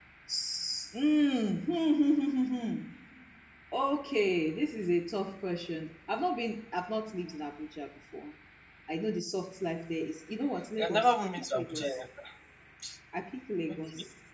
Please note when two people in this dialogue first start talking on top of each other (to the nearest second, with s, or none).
11 s